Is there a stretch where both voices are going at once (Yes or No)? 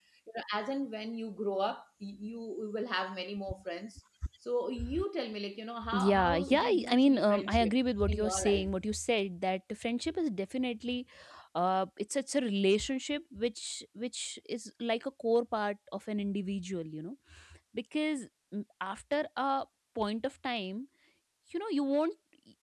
Yes